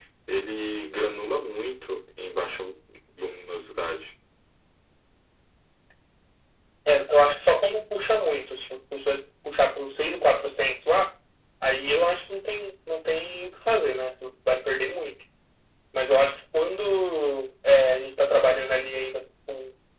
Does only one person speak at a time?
Yes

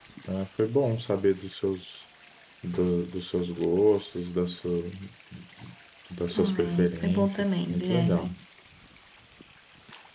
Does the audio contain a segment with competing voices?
Yes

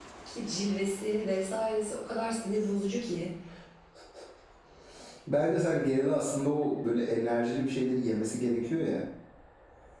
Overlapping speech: No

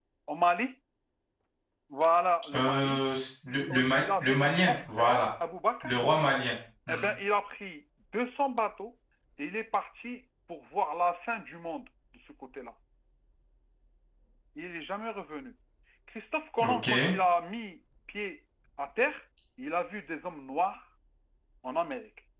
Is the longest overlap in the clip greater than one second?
Yes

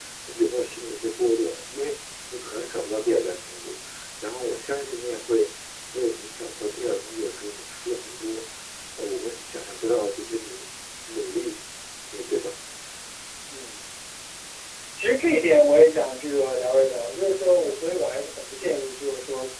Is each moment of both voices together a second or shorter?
Yes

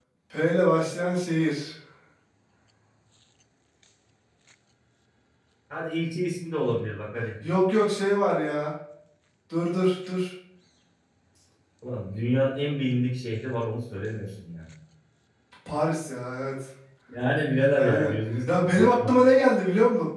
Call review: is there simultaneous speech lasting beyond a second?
Yes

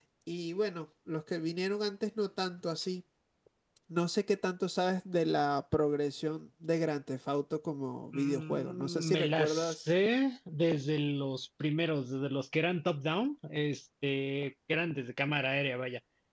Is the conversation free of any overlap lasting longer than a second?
No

